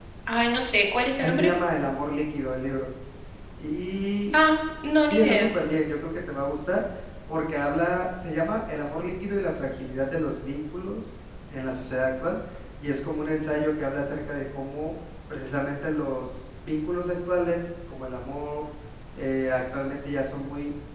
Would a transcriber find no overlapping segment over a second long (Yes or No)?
Yes